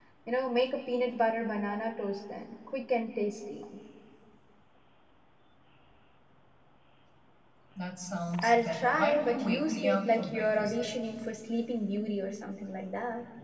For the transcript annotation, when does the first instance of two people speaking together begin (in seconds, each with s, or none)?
8.4 s